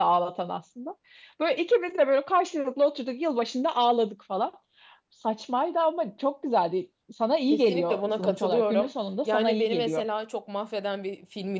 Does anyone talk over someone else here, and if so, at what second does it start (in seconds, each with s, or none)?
7.5 s